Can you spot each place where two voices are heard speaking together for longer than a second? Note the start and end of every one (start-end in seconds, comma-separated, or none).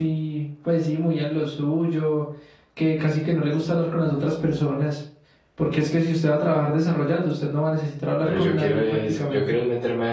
8.3-9.6